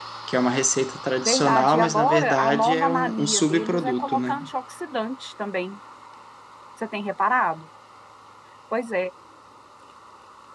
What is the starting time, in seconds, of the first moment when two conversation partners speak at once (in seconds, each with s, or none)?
1.2 s